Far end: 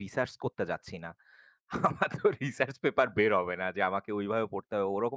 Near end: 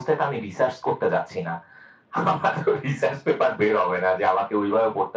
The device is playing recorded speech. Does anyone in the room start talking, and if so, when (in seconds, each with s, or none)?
none